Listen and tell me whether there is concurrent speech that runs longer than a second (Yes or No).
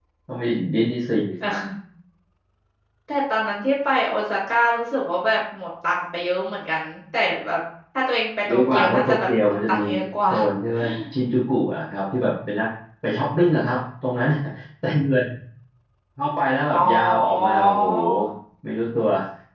Yes